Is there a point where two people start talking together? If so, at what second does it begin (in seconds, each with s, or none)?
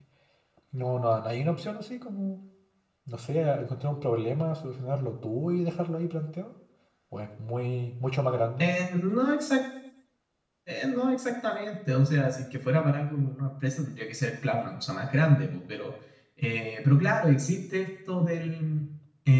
none